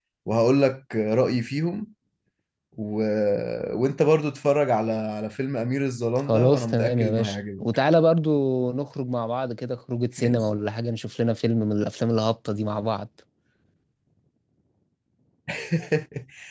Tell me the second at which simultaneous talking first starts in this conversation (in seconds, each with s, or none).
6.3 s